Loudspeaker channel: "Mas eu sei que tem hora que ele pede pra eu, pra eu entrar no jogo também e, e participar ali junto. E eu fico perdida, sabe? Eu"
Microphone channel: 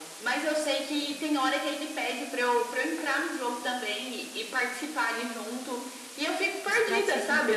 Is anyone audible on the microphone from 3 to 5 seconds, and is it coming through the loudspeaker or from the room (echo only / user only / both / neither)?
echo only